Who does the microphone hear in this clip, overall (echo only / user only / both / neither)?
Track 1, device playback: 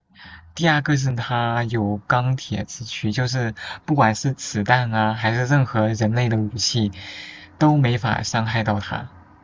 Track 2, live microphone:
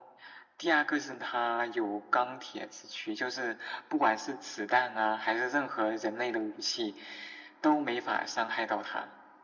echo only